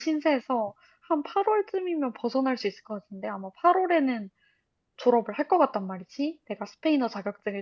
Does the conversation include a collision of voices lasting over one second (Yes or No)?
No